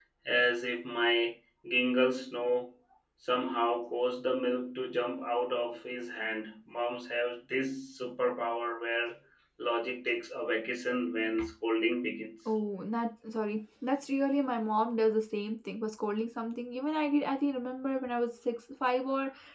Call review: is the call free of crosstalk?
Yes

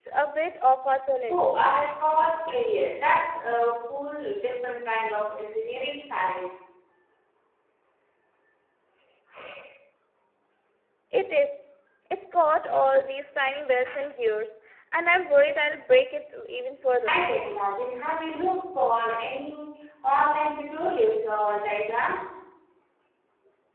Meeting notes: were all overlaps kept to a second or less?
Yes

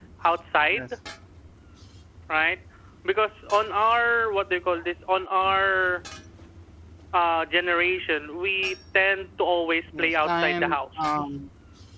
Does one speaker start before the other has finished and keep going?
Yes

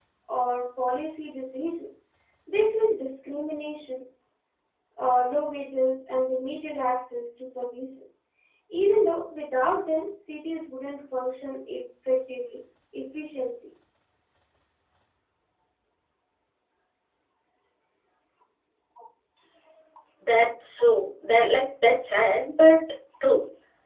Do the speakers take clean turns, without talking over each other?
Yes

